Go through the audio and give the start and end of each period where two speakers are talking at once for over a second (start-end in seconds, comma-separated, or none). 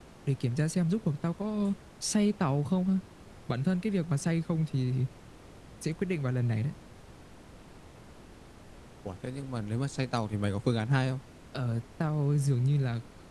none